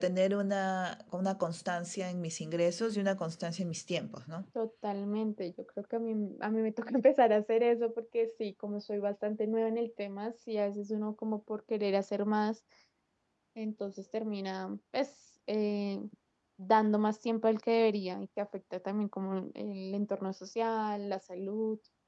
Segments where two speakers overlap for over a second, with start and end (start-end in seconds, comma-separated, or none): none